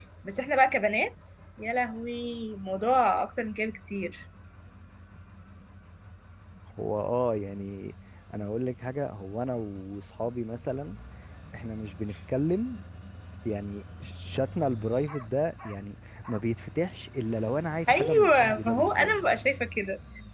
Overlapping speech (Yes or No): Yes